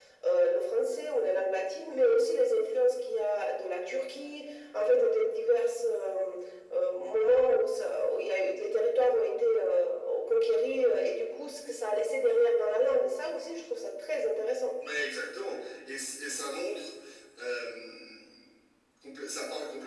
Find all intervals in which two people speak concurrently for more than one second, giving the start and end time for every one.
none

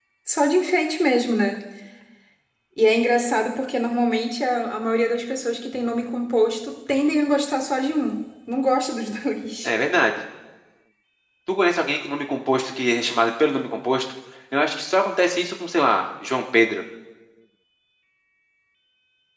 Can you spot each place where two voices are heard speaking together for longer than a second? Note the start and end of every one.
none

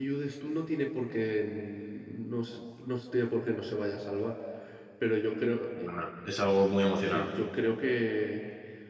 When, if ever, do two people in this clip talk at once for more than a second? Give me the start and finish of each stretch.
none

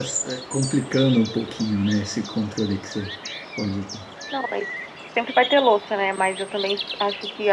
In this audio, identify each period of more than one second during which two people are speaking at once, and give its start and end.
none

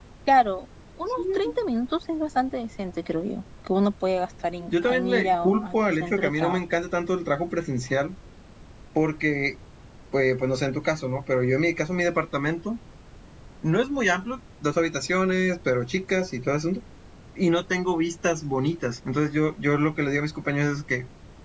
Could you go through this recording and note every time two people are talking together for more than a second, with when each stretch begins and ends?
4.7-6.6

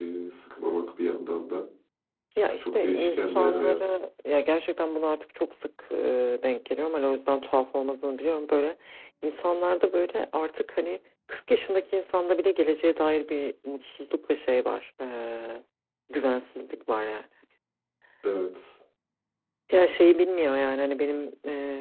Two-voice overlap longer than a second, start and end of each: 2.6-4.0

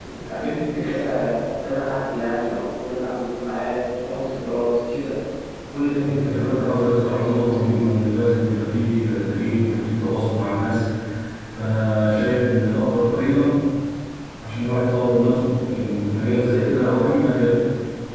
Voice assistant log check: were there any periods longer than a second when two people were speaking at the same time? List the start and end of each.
6.0-8.0

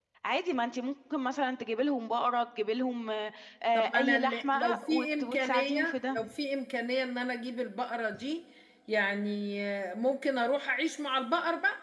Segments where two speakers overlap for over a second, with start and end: 3.8-6.2

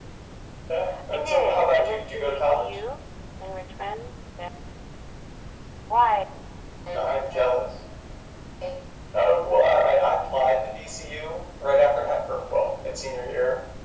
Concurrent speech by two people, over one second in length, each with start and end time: 1.1-2.8

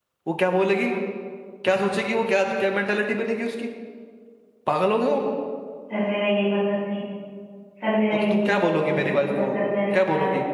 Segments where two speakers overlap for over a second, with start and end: 8.1-9.5

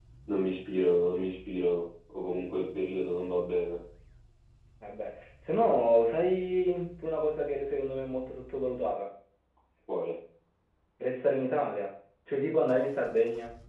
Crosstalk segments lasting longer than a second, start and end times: none

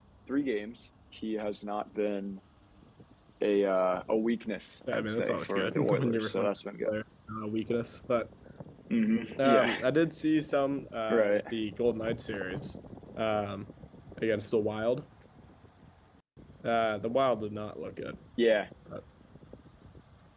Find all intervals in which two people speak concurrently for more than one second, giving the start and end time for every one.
4.9-6.5

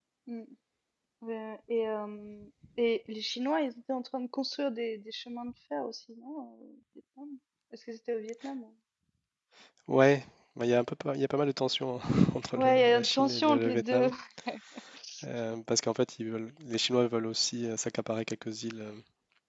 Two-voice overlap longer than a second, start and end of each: 12.6-14.1

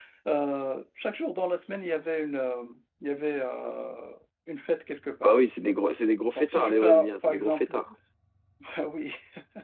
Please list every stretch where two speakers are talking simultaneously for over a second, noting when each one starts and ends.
6.3-7.7

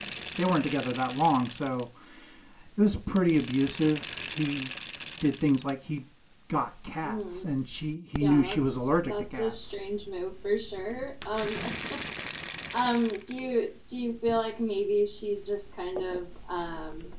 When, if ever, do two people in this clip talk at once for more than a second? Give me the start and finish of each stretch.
8.2-9.8

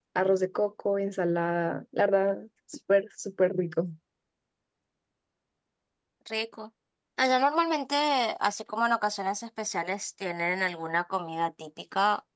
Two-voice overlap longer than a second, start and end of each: none

